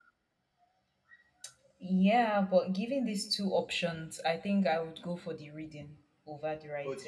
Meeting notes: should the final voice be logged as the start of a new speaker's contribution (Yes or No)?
Yes